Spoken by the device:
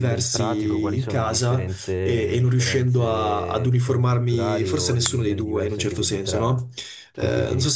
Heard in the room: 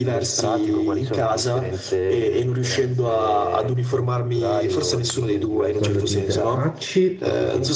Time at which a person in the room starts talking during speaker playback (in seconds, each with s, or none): 5.7 s